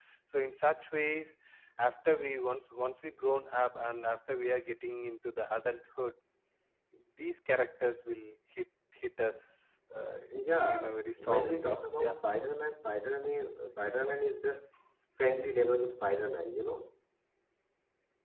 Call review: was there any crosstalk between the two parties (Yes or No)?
Yes